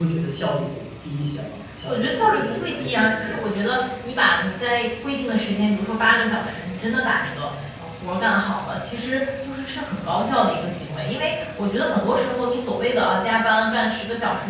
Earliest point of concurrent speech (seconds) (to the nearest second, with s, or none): 2 s